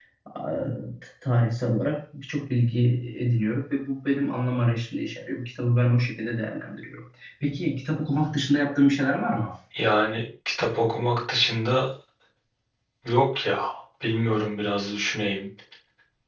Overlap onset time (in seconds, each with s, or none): none